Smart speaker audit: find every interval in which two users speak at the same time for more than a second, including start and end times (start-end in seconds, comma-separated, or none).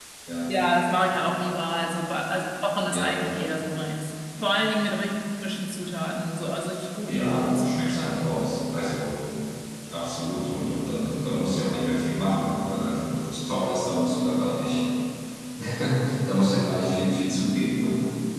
7.1-8.3